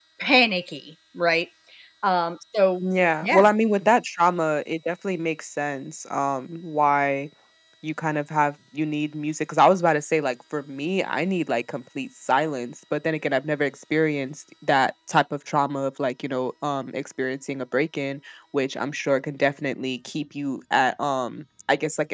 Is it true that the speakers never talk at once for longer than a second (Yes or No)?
Yes